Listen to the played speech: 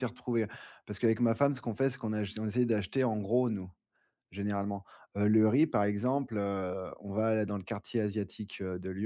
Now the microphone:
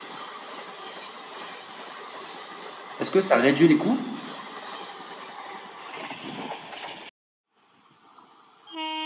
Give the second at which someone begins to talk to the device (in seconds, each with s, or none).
3.0 s